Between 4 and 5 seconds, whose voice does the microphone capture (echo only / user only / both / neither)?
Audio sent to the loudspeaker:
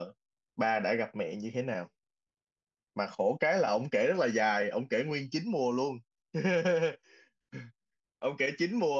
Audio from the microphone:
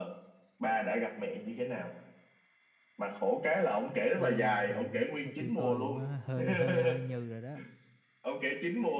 both